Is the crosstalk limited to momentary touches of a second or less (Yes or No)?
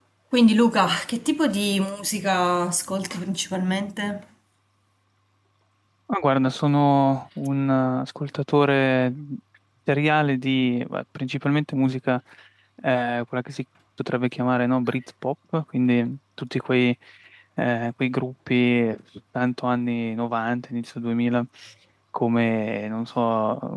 Yes